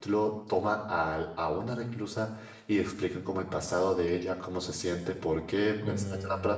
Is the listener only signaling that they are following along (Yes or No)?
Yes